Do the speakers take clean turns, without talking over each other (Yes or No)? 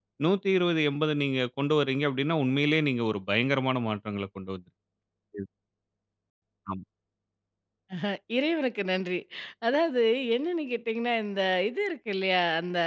Yes